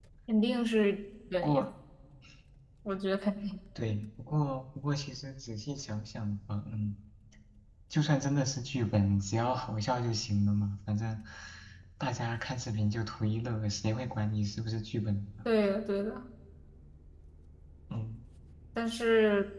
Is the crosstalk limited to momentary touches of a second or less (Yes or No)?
Yes